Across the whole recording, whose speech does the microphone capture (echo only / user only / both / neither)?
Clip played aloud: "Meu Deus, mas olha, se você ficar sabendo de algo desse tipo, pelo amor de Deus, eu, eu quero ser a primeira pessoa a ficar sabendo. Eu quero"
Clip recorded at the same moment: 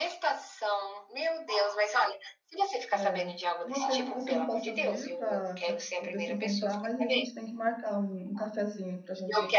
both